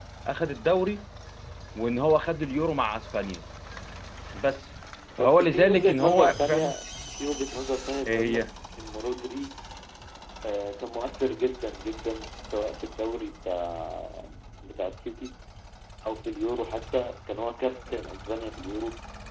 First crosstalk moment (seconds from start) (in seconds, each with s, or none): 5.2 s